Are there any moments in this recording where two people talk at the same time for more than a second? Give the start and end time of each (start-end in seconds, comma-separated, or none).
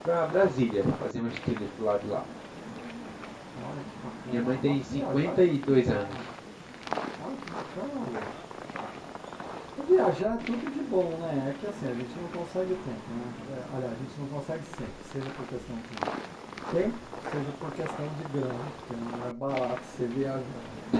4.3-6.3